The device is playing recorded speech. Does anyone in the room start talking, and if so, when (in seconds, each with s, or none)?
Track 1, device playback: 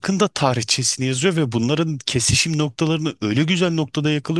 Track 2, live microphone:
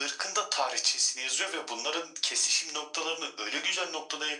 none